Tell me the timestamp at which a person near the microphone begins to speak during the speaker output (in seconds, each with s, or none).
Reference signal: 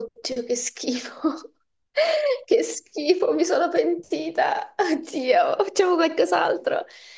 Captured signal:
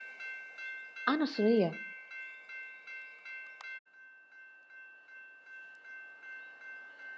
1.0 s